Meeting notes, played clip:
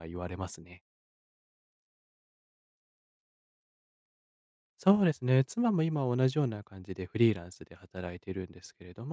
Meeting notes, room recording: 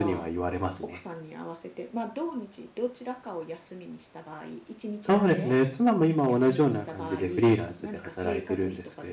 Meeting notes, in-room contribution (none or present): present